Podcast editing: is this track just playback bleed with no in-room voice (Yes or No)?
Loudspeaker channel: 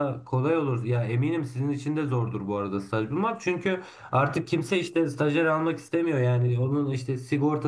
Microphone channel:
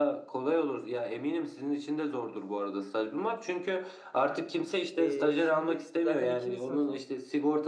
No